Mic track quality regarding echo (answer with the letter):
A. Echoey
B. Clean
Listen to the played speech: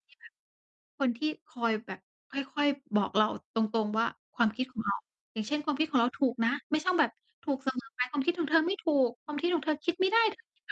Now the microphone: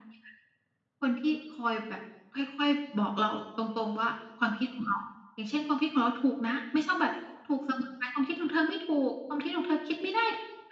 A